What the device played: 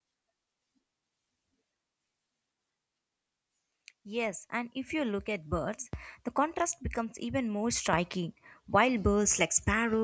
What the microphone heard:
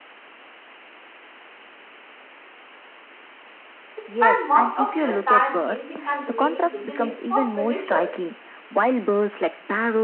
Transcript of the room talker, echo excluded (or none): spend most of their time gazing and remaining vigilant for predators,